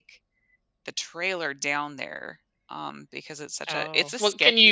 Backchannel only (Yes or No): No